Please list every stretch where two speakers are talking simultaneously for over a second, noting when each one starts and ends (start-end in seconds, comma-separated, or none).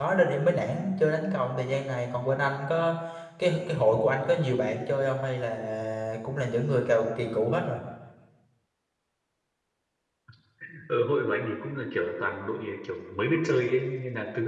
none